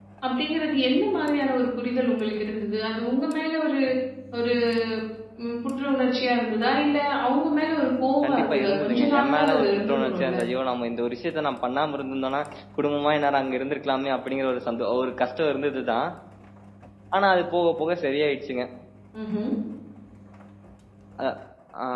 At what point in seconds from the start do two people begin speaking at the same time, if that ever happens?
8.2 s

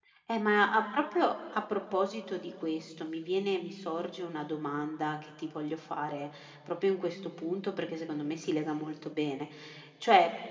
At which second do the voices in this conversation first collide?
none

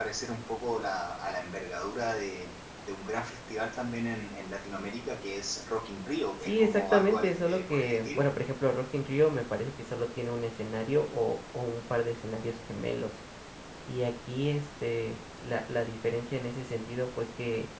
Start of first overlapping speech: 6.4 s

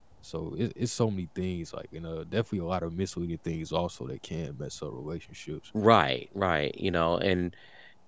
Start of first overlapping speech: none

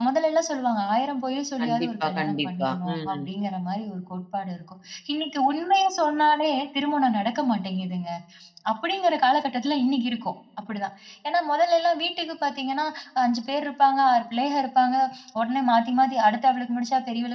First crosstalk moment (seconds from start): 1.6 s

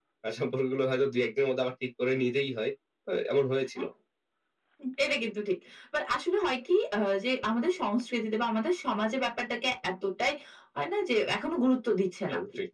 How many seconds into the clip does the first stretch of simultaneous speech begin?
none

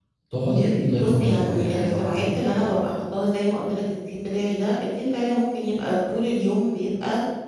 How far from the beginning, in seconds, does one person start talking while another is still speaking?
0.9 s

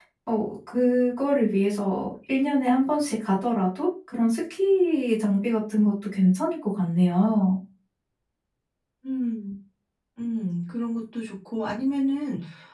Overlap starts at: none

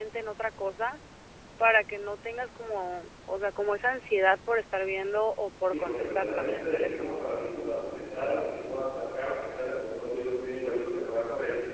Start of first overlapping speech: 5.6 s

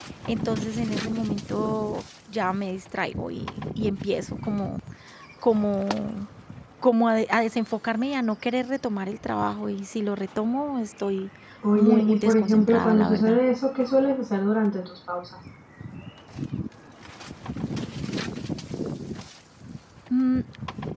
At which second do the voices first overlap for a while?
11.8 s

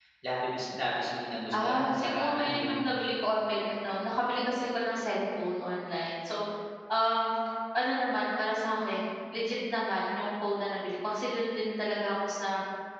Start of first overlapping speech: 1.5 s

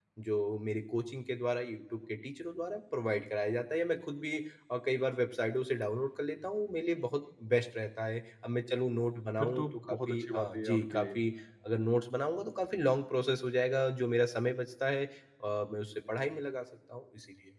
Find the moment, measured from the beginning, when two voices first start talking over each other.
9.4 s

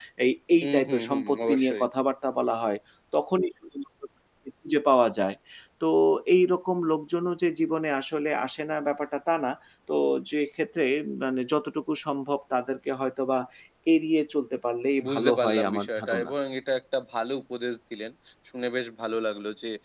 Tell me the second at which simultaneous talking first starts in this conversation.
0.6 s

